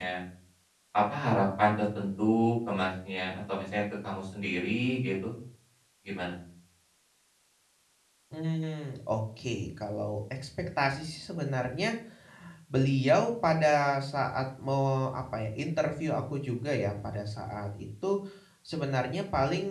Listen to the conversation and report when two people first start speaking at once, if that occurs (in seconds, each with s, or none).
none